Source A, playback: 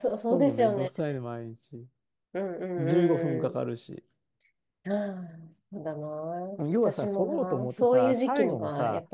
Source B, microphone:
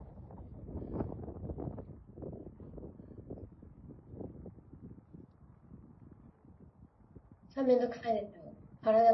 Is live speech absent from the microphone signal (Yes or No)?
No